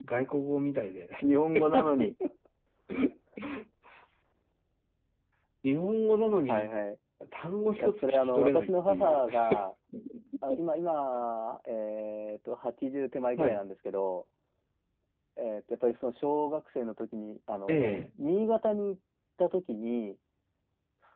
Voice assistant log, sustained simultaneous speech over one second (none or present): present